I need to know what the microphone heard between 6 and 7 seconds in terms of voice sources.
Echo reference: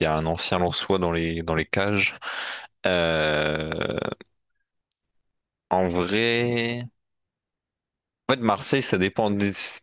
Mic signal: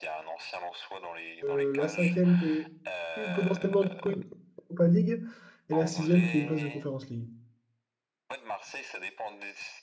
both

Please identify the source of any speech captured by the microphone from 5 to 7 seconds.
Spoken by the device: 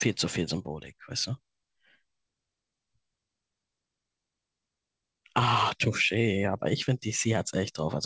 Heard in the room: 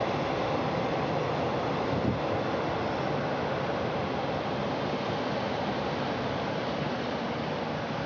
neither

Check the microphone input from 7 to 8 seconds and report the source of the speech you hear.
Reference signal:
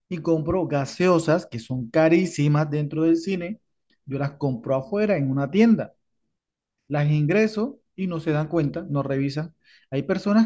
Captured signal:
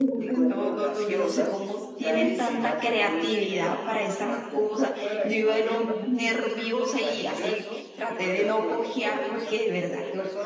both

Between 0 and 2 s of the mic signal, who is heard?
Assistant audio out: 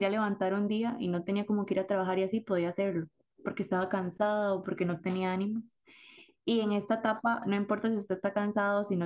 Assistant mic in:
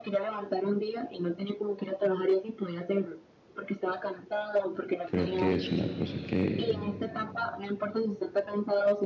echo only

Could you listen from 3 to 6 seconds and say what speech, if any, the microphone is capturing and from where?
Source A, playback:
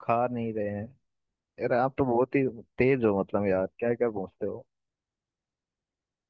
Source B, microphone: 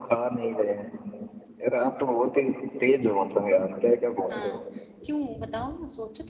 both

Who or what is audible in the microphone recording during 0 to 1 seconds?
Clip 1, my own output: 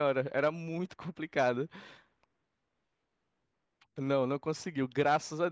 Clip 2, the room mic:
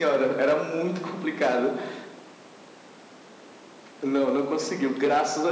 echo only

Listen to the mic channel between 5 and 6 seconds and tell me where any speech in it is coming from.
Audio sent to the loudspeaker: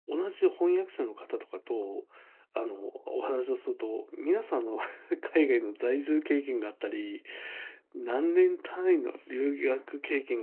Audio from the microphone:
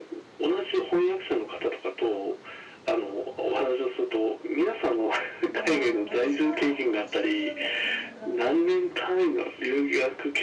both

